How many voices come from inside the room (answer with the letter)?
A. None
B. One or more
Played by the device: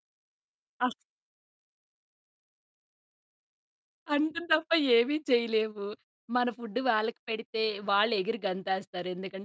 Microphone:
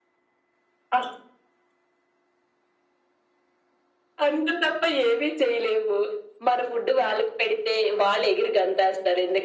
A